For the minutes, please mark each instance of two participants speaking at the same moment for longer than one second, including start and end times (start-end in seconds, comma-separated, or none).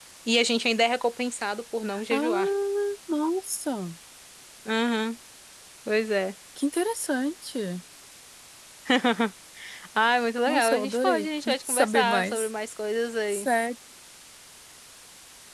10.5-12.5